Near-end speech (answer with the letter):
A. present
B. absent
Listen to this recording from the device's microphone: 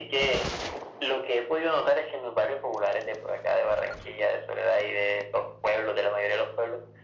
B